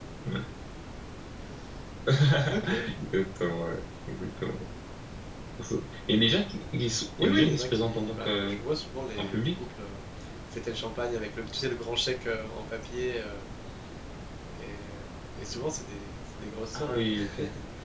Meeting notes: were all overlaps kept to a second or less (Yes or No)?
No